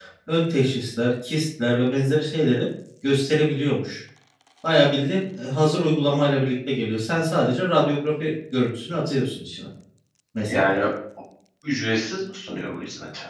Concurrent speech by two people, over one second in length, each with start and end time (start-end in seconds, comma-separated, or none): none